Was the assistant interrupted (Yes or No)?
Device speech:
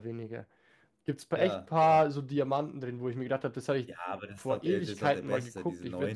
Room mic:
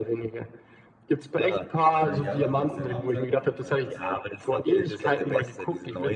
Yes